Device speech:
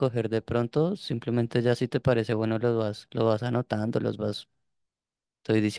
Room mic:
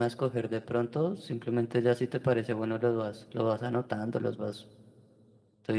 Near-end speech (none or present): none